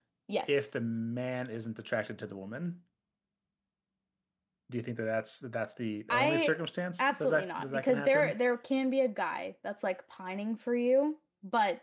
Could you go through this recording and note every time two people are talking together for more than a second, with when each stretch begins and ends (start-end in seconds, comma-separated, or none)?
7.0-8.3